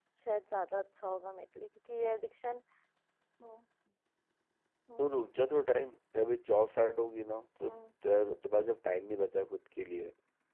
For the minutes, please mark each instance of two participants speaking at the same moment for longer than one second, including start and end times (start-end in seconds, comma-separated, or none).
none